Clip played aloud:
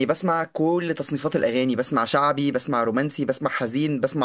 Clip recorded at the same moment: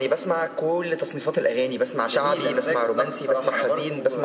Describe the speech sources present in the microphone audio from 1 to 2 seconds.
echo only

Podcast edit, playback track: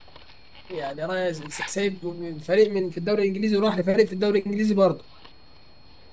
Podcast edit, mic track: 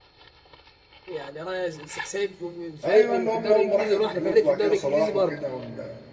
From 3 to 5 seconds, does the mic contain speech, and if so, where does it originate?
both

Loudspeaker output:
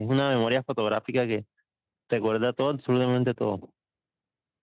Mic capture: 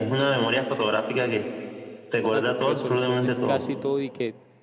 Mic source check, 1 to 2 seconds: echo only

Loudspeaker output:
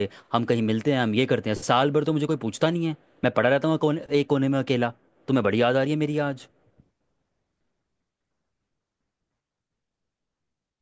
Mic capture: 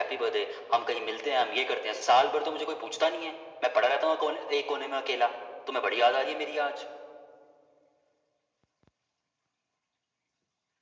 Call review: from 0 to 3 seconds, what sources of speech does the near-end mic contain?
echo only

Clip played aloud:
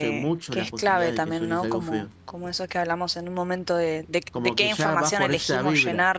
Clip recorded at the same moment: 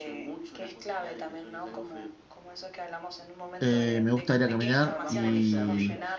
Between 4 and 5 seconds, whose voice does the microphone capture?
both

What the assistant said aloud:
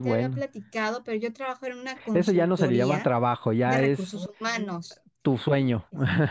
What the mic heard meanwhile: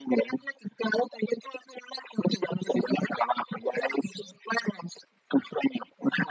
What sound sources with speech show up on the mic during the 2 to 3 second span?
echo only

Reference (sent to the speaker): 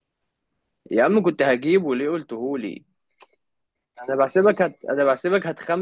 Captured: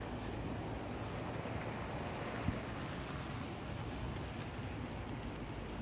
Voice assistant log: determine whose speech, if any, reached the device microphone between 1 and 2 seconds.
neither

